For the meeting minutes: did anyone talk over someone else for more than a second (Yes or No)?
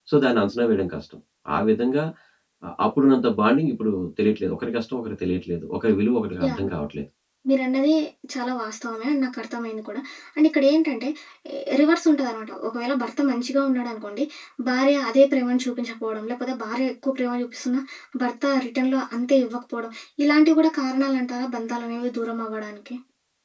No